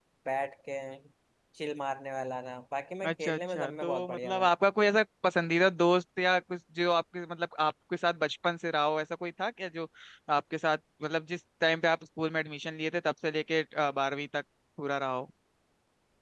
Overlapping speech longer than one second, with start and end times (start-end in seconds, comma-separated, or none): 3.1-4.5